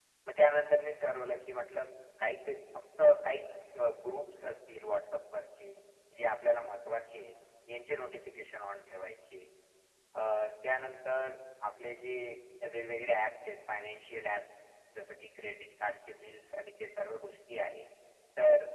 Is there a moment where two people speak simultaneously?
No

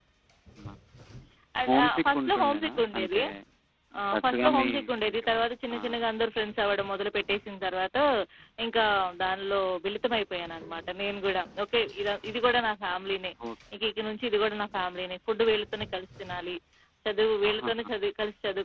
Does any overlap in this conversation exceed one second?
Yes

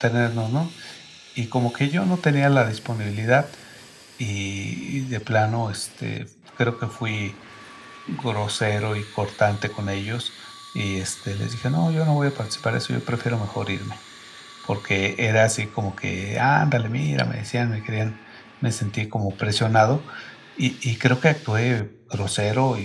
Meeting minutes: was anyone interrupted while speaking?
No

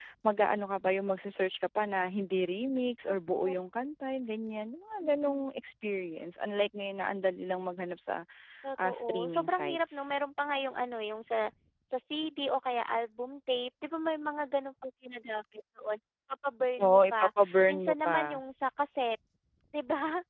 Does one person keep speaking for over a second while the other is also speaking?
Yes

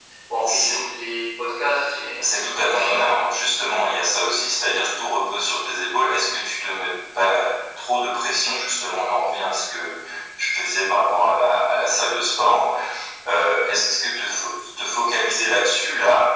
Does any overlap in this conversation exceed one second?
Yes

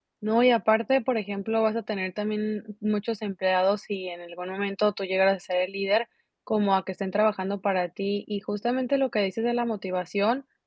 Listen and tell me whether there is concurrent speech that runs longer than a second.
No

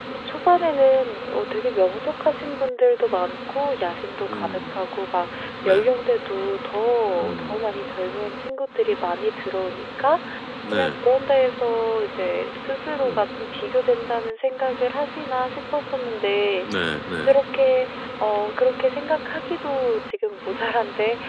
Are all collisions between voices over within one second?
Yes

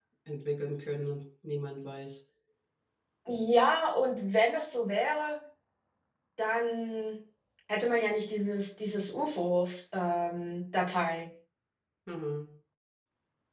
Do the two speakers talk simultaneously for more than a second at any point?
No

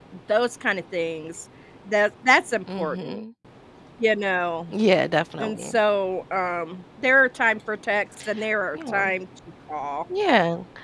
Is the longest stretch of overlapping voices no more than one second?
Yes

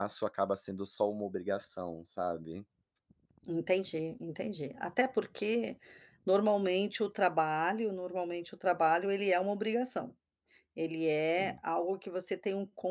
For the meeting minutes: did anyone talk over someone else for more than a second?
No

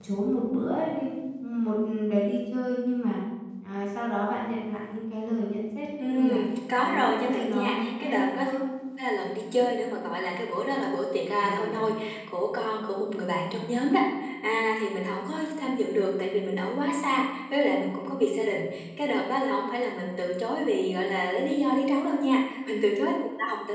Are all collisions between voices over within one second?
No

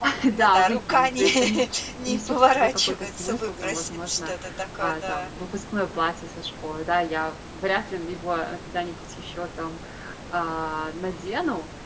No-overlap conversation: No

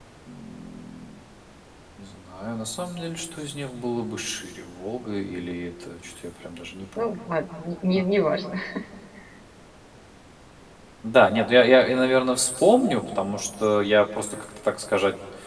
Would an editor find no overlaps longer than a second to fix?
Yes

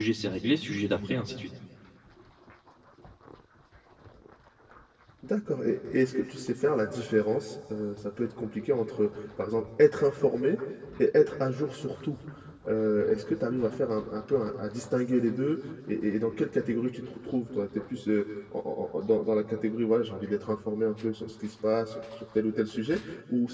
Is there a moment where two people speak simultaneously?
No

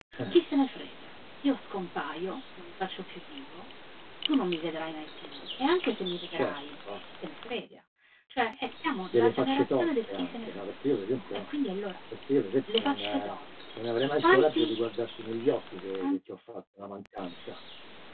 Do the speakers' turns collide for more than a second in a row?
Yes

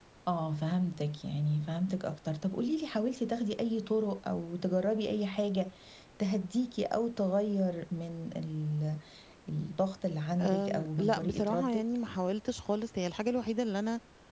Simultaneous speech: Yes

